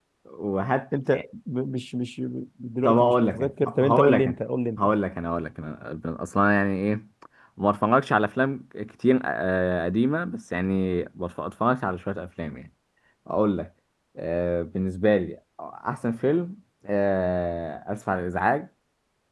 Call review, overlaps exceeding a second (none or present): present